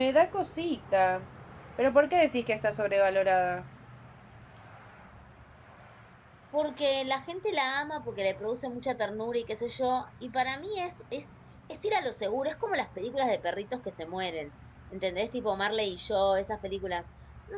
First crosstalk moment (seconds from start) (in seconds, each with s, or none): none